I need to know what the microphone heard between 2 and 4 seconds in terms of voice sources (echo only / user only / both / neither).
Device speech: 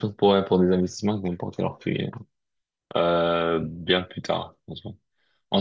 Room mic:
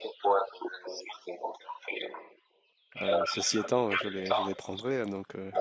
both